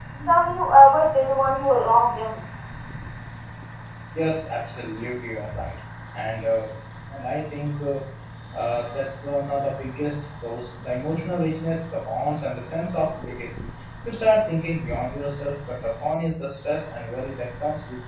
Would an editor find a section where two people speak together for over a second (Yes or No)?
No